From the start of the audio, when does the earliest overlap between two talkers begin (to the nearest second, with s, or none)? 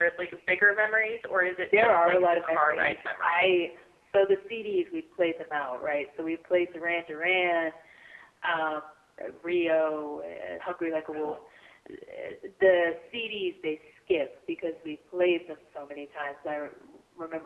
2 s